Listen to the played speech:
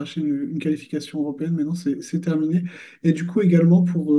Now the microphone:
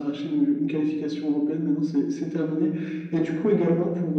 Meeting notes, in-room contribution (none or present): none